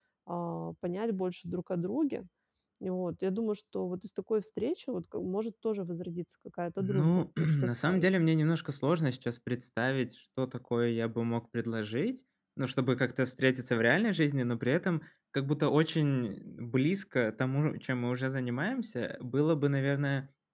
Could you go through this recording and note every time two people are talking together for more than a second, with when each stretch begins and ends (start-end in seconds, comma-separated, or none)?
6.8-8.1